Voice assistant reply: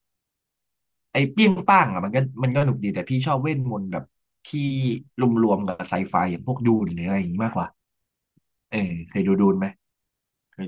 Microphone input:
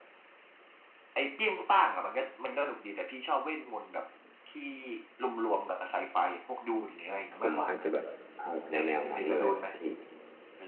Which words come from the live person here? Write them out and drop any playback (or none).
ผมอาจจะแบบเอาแนวแนวนั้นเลยอะครับพี่